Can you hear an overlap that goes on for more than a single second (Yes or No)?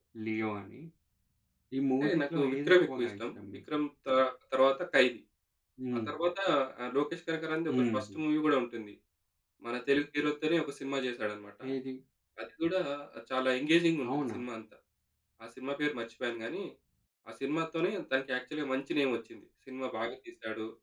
Yes